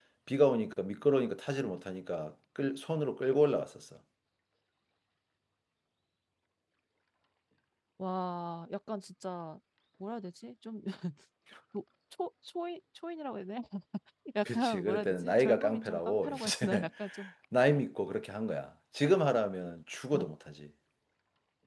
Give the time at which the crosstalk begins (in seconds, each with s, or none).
14.5 s